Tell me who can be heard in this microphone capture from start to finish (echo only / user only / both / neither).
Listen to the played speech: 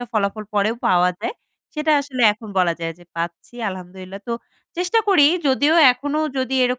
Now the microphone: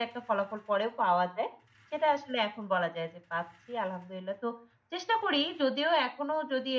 echo only